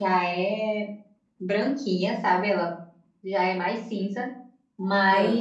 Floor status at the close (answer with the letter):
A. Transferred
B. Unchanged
B